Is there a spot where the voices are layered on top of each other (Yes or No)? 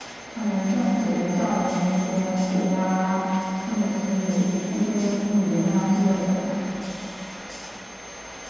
No